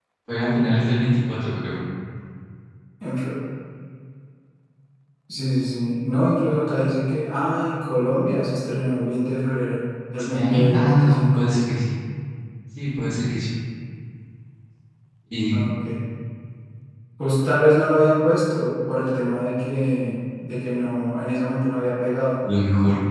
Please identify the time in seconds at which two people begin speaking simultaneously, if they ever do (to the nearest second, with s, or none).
10 s